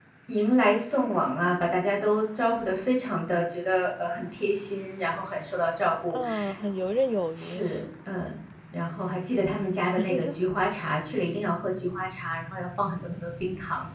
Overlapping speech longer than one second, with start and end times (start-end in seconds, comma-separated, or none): none